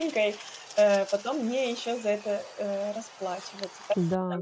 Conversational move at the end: taking over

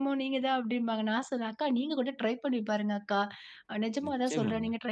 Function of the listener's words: listening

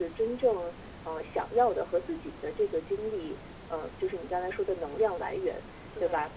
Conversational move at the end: listening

